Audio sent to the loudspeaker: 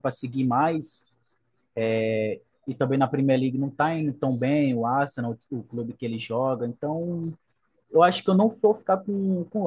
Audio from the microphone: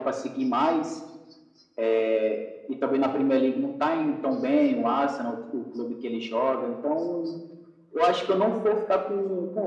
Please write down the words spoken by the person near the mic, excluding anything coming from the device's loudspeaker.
none

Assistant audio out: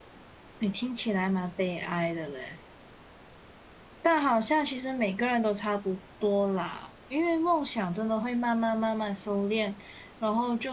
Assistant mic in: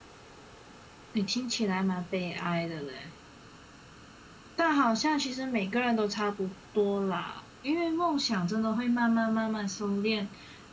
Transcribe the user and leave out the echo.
none

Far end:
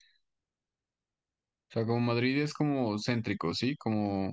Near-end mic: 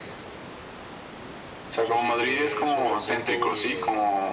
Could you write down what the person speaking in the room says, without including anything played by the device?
Eso sí que eso me lo apunto porque

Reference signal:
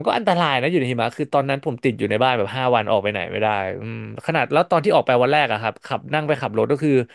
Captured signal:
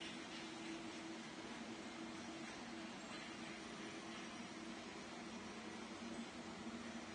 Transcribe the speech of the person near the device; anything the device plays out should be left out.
none

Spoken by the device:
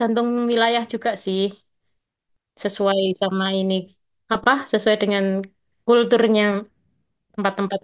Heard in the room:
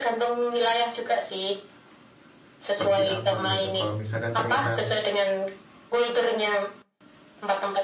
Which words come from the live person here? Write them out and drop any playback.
seperti apa gitu. Kalau misalkan ternyata

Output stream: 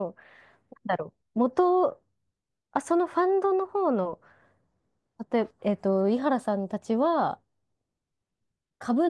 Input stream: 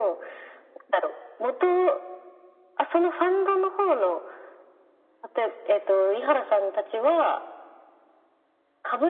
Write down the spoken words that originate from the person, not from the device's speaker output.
none

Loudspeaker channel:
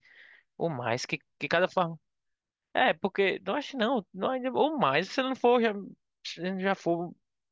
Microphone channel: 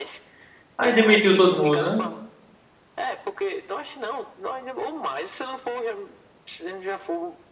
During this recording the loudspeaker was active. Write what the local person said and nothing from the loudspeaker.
Aí demitiu todo mundo, né?

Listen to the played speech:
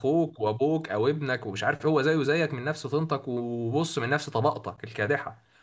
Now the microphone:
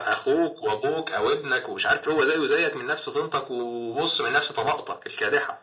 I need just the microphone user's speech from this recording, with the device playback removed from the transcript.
none

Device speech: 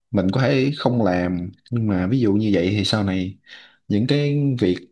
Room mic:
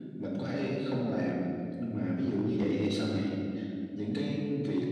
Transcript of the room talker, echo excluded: none

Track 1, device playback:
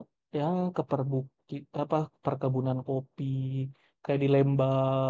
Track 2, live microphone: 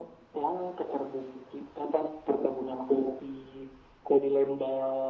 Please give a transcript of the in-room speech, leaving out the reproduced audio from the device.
none

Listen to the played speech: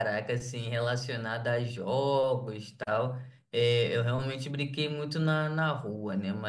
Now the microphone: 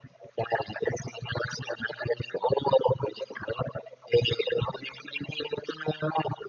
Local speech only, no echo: none

